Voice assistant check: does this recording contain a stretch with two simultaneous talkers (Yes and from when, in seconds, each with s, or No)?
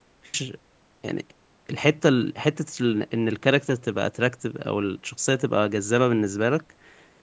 No